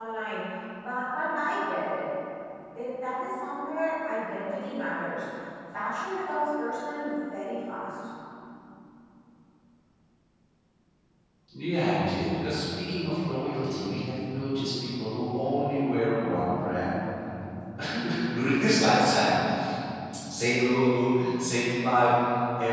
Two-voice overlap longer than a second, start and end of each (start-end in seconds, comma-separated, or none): none